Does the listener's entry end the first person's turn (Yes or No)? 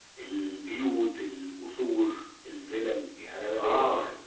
No